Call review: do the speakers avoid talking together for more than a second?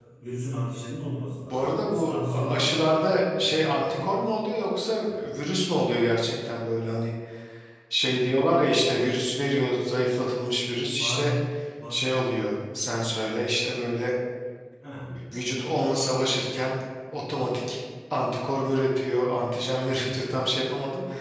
No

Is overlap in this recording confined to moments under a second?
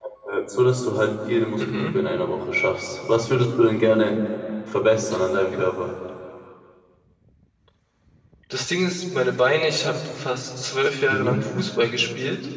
Yes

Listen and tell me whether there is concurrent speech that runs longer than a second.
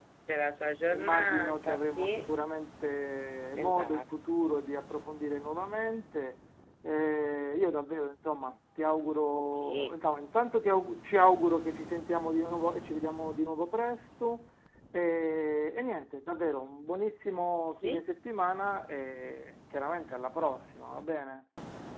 Yes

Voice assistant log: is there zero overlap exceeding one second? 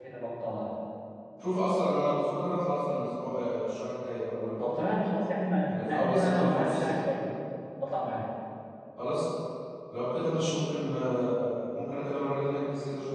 No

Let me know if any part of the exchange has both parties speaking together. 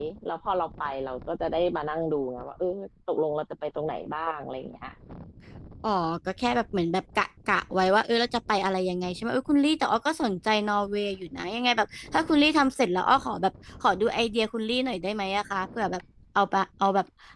No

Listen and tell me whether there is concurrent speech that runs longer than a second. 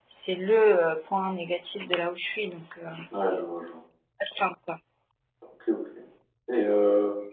No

